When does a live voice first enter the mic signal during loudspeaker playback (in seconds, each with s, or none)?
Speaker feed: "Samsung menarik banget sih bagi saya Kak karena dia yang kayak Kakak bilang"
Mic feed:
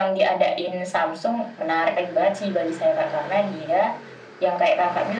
none